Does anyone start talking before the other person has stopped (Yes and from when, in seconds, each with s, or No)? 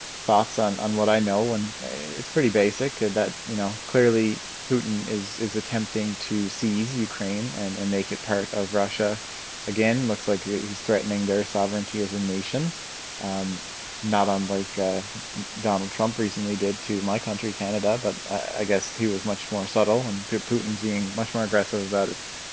No